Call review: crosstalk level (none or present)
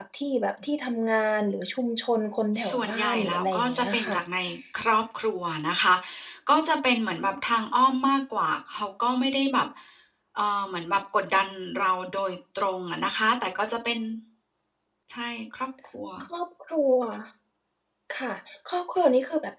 present